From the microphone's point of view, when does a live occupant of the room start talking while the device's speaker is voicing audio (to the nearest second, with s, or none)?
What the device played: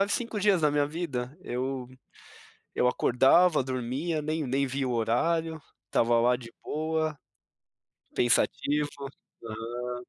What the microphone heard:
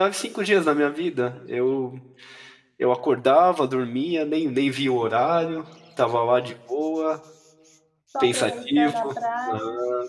8 s